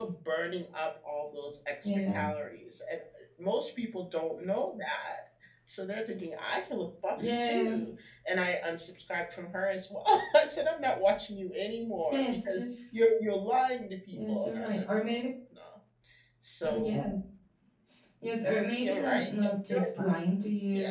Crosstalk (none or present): present